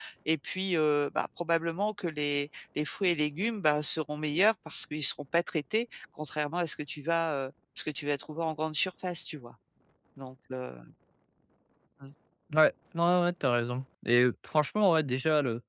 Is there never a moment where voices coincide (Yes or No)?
Yes